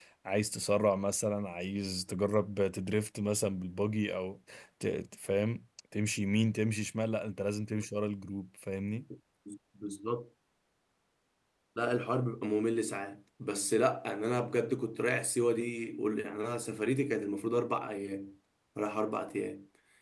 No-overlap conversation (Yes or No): Yes